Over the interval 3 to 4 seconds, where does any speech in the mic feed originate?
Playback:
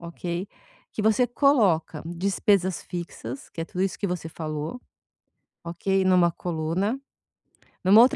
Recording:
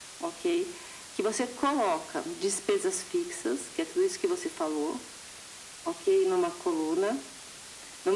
echo only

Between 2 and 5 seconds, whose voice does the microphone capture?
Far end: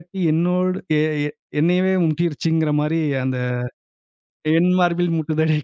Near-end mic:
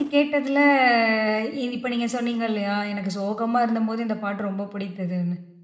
user only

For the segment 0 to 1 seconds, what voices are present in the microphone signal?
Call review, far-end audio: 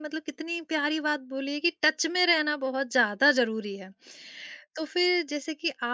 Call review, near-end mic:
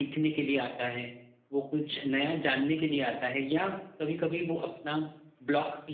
user only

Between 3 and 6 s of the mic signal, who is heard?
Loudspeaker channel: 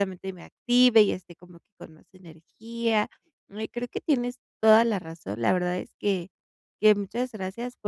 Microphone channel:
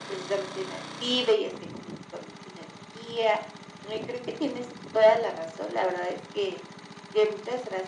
echo only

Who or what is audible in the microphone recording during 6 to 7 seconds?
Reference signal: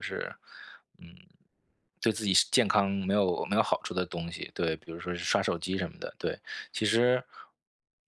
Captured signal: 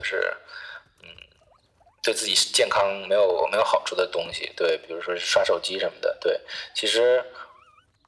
echo only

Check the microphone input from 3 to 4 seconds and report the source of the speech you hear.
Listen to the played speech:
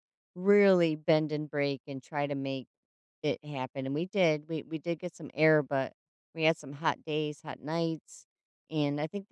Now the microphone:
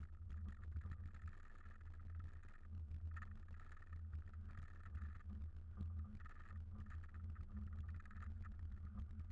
neither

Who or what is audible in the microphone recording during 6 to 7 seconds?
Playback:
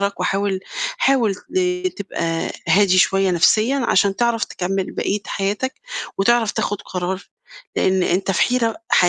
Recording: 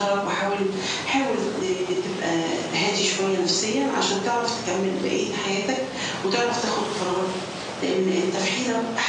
echo only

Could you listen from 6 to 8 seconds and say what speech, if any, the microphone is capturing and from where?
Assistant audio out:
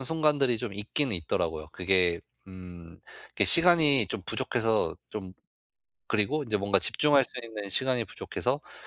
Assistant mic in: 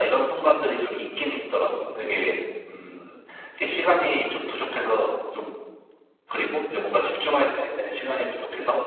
echo only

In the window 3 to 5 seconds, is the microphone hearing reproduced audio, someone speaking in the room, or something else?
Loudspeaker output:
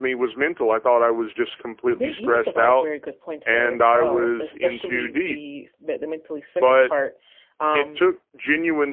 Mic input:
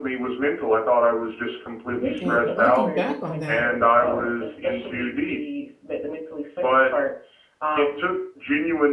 both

